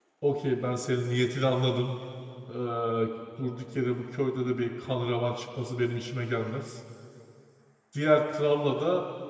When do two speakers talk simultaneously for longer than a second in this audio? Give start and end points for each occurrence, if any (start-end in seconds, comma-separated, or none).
none